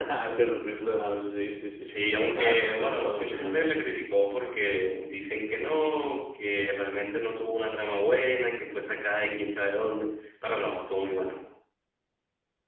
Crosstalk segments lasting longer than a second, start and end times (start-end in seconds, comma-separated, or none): 2.4-3.7